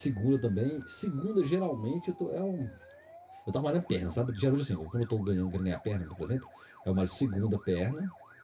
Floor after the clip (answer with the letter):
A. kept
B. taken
A